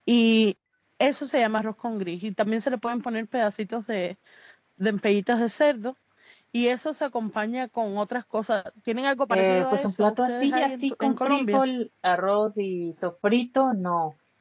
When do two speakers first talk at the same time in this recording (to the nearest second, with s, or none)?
9 s